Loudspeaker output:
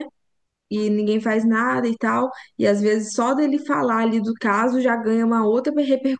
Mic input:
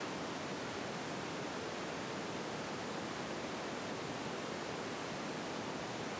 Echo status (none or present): none